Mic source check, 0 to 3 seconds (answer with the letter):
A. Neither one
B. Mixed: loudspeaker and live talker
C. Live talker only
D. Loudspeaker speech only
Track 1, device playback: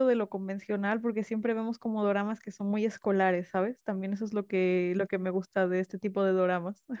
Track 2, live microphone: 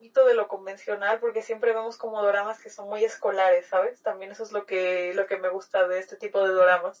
D